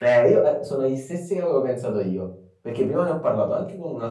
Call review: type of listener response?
listening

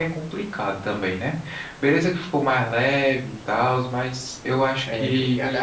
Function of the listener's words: taking over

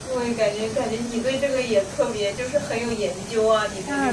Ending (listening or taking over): taking over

